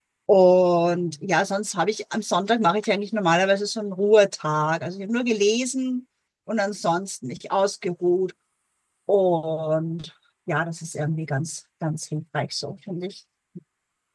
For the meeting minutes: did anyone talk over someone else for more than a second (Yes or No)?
No